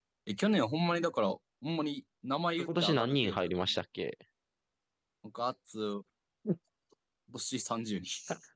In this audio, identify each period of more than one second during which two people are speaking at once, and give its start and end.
2.6-3.8

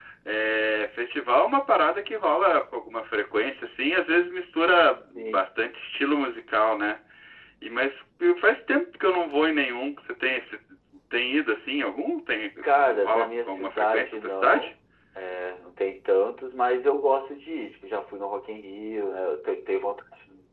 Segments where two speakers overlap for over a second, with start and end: 13.0-14.7

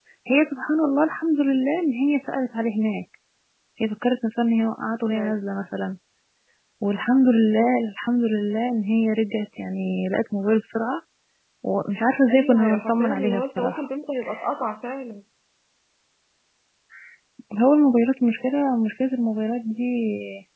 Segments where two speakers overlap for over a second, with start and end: 12.3-13.9

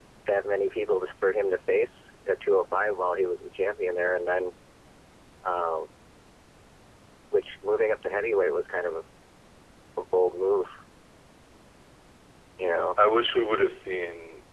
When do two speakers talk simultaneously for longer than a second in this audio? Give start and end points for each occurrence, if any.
none

